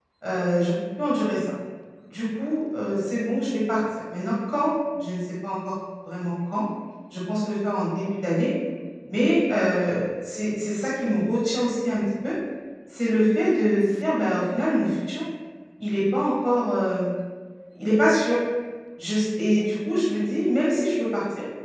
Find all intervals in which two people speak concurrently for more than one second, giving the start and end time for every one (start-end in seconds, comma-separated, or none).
none